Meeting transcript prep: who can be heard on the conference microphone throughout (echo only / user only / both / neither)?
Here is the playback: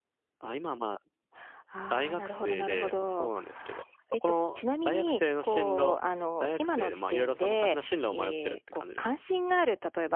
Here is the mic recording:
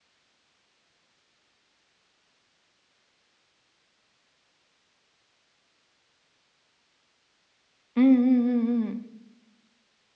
user only